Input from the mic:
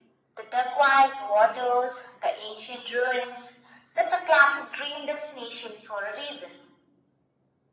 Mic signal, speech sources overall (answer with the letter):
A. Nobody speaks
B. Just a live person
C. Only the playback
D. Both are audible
C